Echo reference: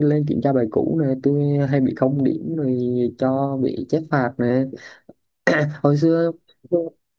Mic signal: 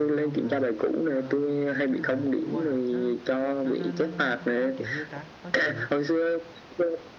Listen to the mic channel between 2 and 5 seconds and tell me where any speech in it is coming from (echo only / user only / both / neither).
both